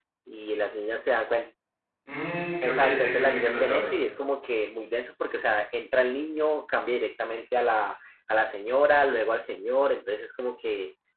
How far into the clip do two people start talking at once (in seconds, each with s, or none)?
2.6 s